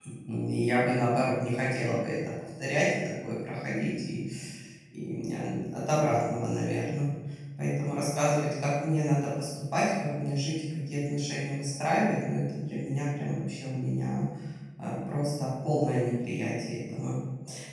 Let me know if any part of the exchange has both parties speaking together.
No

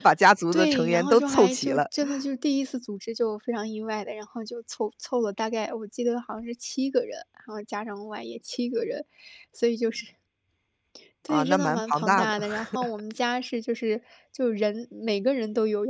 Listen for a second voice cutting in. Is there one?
Yes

